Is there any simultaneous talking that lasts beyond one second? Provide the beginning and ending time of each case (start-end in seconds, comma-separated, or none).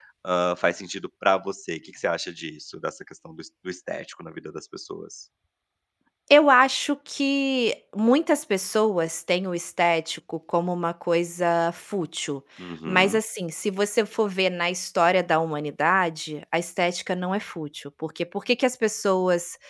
none